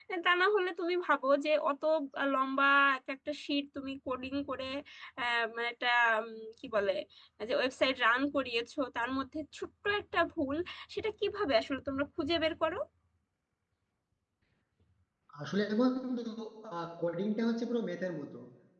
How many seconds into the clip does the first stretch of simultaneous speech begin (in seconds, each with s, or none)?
none